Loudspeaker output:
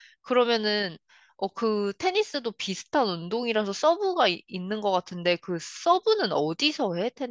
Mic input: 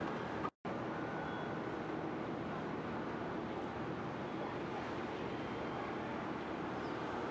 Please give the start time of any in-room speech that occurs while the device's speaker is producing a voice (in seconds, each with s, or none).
none